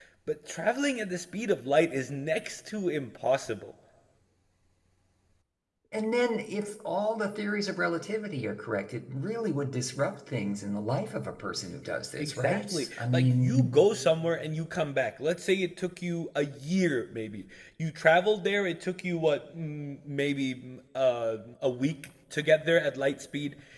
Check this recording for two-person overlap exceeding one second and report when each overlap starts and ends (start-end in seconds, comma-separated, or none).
12.2-13.7